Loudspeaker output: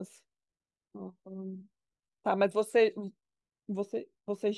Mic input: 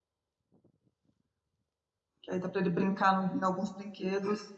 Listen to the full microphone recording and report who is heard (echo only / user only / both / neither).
user only